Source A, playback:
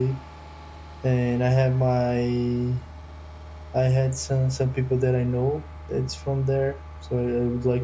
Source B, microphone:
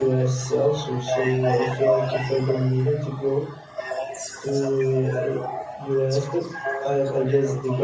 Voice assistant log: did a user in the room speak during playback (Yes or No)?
Yes